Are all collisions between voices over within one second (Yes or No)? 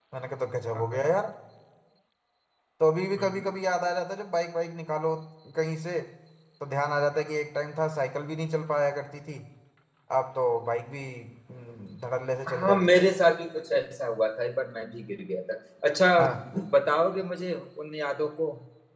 Yes